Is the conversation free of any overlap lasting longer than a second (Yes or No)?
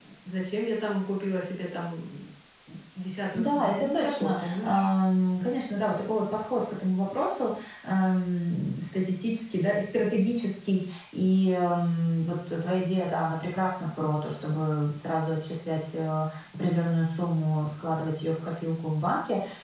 No